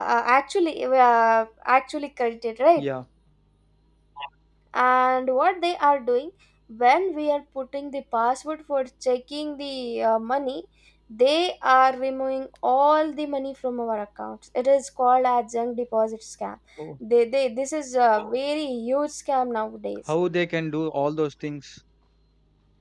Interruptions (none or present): none